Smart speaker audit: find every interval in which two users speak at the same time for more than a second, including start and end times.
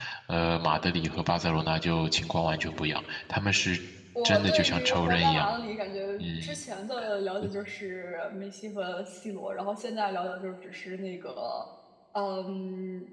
4.2-5.5

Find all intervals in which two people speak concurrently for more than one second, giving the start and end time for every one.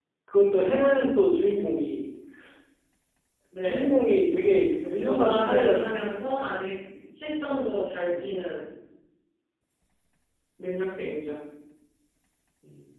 4.9-6.7

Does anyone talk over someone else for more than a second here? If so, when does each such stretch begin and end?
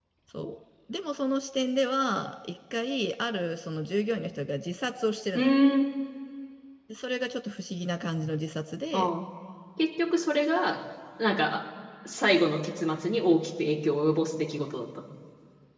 none

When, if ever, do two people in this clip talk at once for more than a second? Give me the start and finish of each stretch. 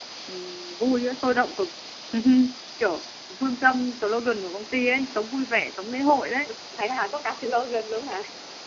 none

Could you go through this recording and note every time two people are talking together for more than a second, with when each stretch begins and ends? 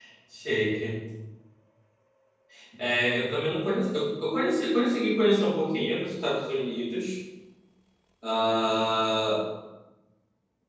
none

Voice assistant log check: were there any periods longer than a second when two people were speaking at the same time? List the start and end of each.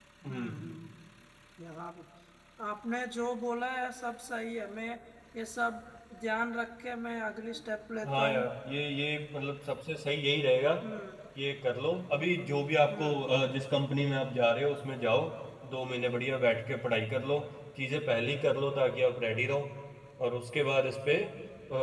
none

